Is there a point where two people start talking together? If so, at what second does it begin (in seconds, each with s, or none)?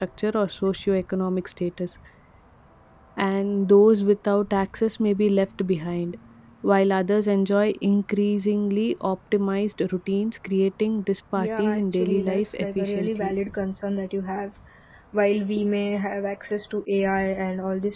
11.4 s